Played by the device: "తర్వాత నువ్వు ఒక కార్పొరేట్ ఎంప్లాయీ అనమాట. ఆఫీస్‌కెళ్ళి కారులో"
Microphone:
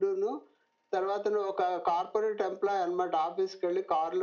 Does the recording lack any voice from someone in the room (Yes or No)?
Yes